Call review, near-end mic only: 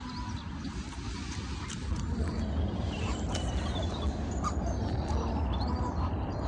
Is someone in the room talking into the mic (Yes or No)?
No